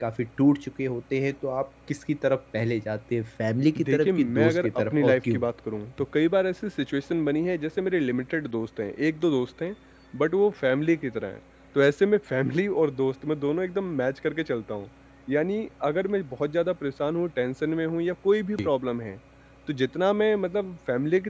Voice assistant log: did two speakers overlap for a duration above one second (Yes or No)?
Yes